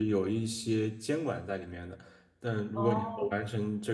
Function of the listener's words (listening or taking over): listening